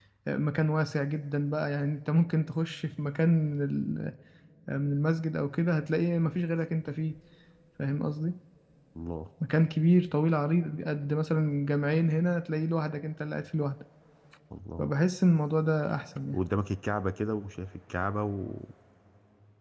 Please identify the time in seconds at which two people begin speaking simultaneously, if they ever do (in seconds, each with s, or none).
none